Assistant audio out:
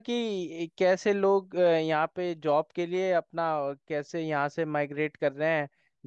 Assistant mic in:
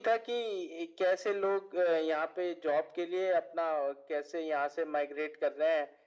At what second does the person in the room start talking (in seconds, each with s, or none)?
none